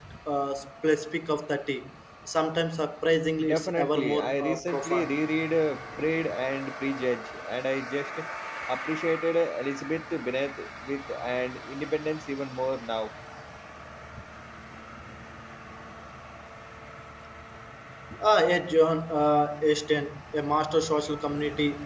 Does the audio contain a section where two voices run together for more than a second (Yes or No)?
Yes